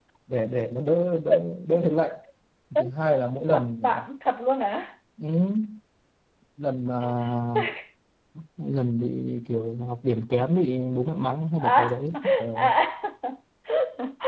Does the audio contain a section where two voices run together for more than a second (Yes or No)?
No